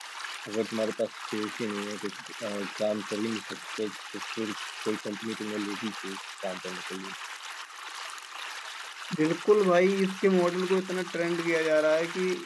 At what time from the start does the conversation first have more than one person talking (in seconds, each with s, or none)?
none